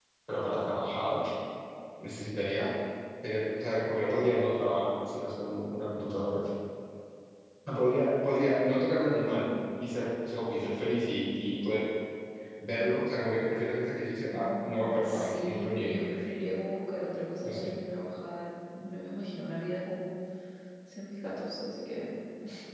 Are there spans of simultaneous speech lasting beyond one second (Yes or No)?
Yes